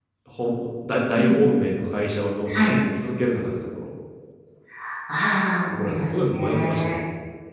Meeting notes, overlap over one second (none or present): present